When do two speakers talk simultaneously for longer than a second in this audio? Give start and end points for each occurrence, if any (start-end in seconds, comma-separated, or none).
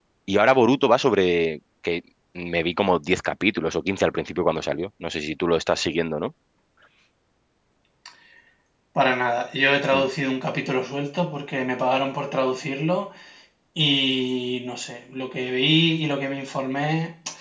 none